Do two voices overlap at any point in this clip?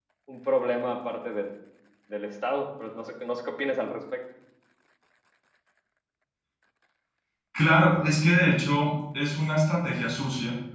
No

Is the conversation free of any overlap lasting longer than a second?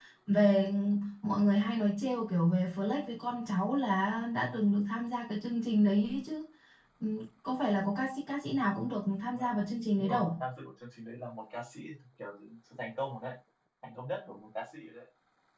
Yes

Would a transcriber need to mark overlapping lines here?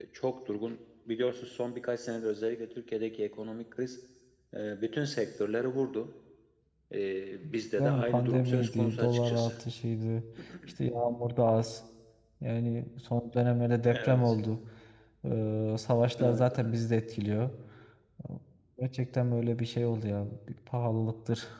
Yes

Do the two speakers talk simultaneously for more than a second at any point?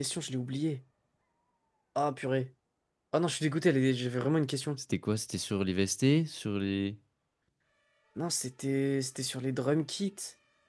No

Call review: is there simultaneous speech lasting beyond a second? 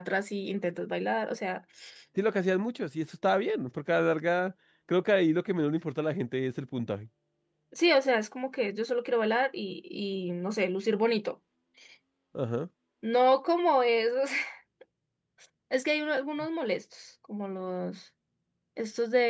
No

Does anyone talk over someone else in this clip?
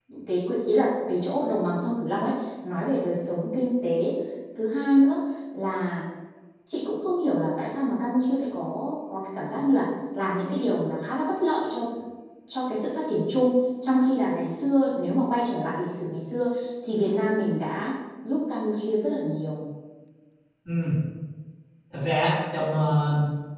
No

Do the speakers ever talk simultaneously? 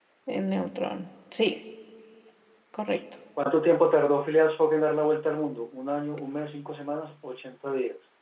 No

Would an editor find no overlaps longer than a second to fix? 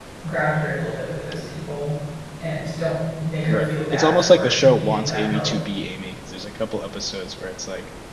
No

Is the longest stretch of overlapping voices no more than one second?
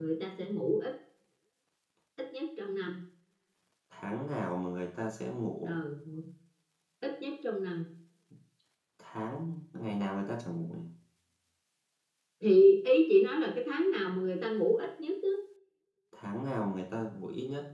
Yes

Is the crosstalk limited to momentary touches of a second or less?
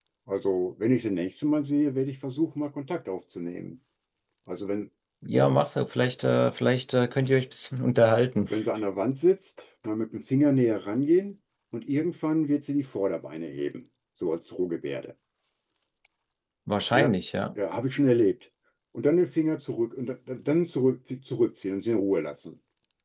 Yes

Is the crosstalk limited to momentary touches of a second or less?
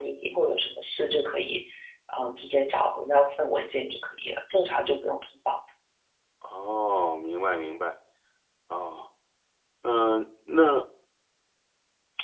Yes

